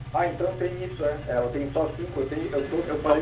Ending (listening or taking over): taking over